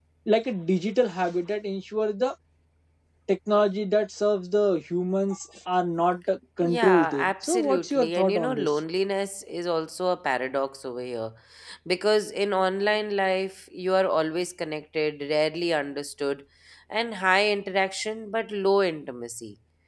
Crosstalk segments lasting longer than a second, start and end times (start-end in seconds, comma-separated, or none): 6.6-8.8